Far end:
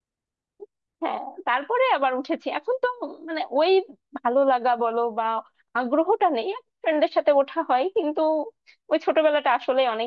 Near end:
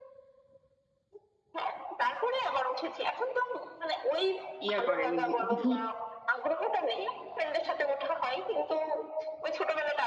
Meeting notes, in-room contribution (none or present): present